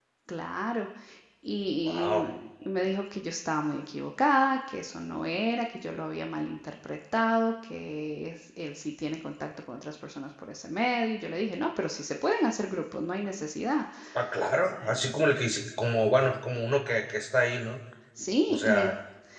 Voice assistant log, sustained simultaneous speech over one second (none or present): none